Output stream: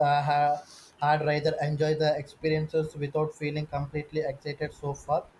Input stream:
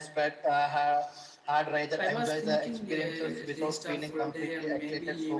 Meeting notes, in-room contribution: present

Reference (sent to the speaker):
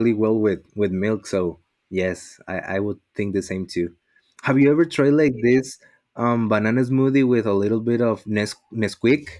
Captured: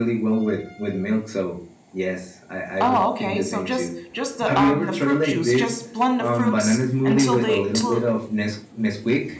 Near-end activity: present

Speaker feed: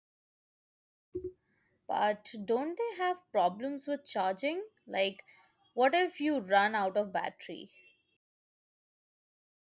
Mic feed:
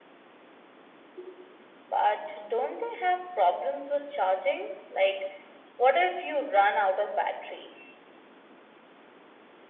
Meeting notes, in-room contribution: none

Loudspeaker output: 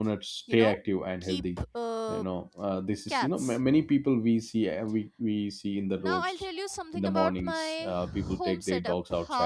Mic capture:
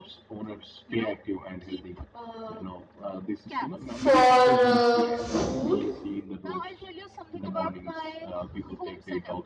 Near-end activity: present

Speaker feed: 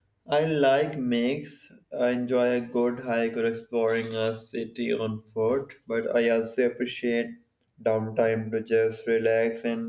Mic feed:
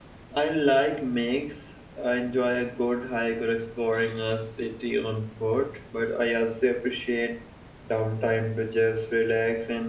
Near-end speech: none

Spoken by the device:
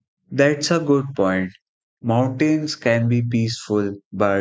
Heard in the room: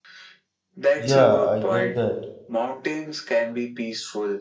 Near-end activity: present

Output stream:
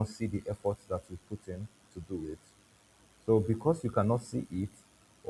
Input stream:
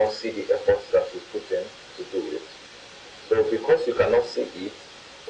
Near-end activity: none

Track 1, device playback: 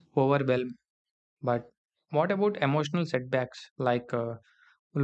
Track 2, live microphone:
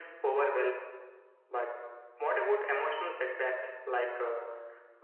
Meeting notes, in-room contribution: none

